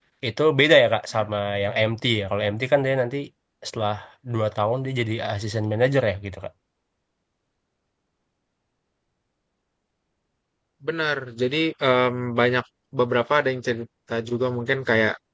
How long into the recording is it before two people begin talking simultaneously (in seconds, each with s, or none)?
none